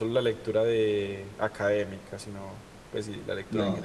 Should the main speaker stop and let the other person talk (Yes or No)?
Yes